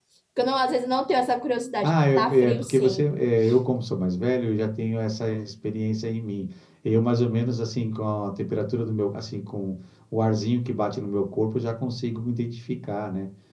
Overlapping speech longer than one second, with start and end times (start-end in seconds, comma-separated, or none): 1.8-3.0